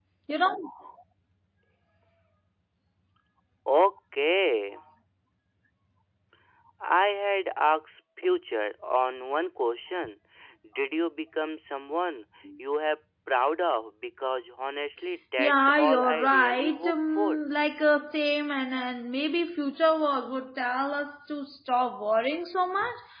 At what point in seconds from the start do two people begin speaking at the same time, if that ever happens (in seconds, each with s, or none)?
15.4 s